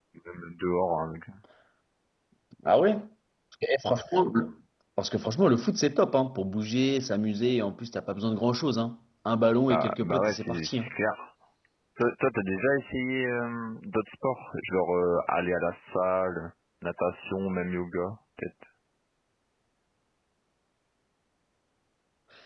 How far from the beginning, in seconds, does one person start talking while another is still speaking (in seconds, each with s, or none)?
9.7 s